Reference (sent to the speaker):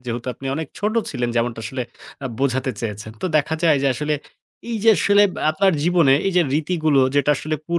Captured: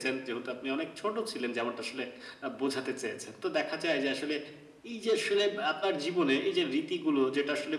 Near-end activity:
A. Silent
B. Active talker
A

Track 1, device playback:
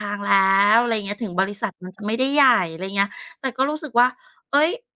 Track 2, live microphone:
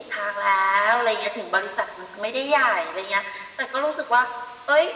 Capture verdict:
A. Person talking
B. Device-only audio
B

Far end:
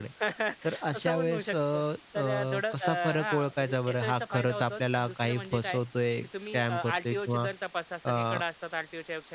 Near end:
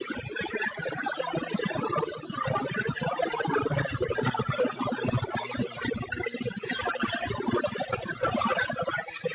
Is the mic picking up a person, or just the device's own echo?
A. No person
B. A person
A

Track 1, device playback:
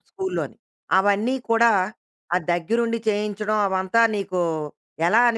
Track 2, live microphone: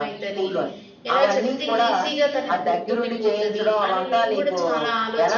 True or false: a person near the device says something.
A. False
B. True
B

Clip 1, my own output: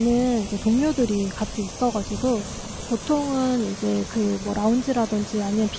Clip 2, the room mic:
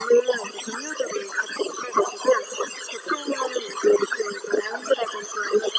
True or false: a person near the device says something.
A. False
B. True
A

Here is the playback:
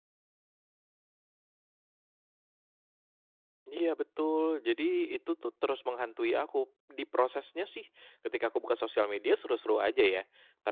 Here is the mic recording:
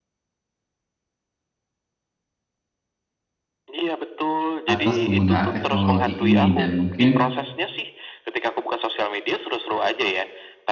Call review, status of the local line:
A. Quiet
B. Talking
B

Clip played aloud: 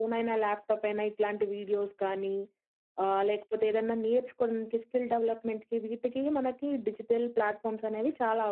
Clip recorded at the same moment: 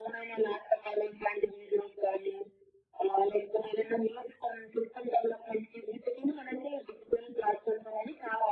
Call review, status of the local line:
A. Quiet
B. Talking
A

